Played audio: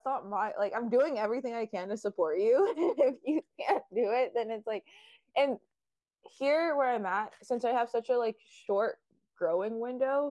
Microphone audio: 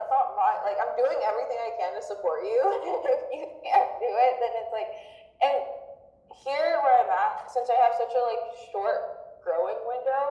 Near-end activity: none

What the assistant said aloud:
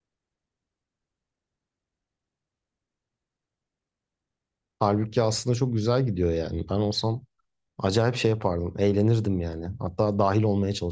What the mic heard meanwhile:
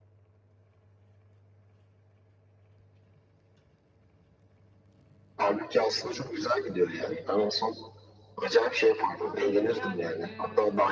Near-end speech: present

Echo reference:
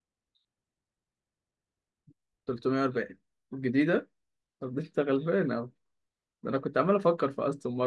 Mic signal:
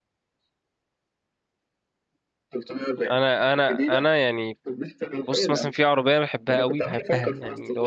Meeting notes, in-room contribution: present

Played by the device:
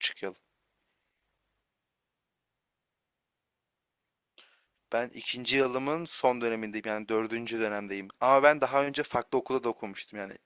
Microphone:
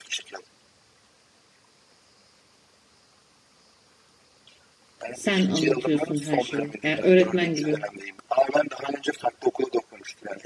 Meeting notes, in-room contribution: present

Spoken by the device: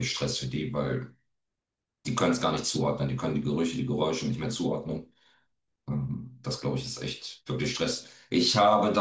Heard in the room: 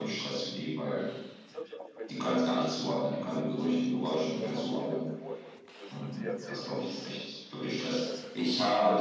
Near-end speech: present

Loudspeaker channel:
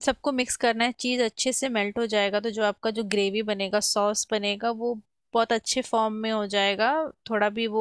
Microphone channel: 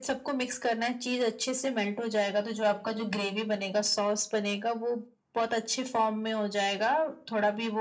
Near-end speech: none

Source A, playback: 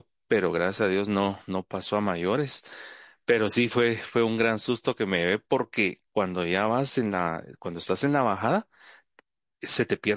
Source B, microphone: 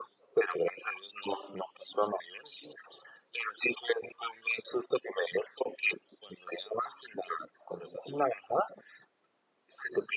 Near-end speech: none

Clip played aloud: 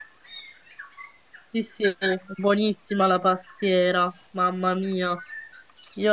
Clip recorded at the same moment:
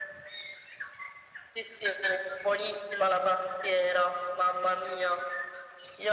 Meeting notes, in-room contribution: none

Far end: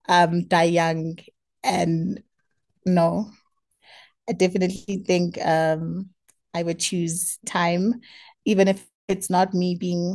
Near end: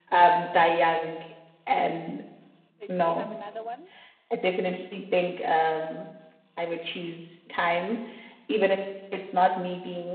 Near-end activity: present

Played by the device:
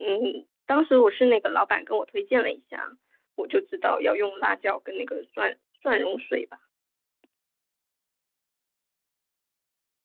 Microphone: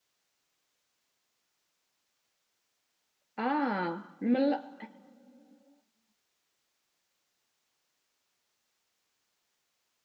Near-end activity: present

